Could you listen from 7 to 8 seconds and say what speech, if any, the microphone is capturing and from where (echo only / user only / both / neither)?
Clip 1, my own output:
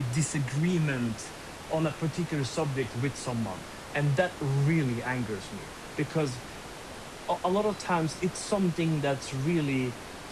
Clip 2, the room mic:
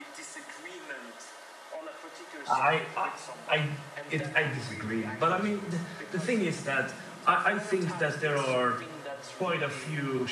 both